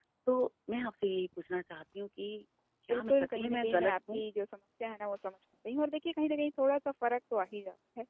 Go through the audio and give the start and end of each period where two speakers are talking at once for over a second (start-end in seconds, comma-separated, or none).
2.9-4.2